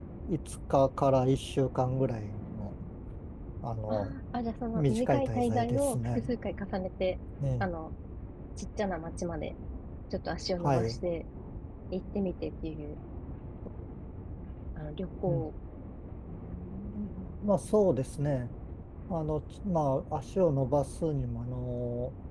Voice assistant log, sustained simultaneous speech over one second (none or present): present